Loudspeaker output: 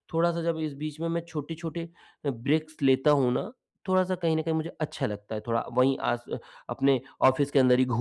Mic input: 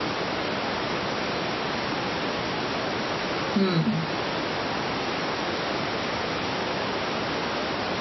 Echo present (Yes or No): No